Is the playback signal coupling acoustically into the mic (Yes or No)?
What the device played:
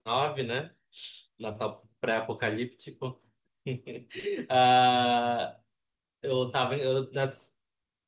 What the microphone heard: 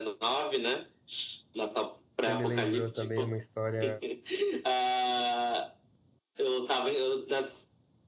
Yes